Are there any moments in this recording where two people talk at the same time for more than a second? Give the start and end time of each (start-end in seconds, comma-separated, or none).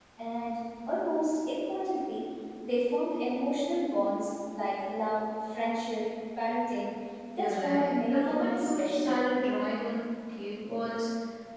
7.4-9.2